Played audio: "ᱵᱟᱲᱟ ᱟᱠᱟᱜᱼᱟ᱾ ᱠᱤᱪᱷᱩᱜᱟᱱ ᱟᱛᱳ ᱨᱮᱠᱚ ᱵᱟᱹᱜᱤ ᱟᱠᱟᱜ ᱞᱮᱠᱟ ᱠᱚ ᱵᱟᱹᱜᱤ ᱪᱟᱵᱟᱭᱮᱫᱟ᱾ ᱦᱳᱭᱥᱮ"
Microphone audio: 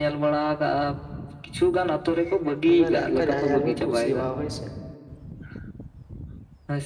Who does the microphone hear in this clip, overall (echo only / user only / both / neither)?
both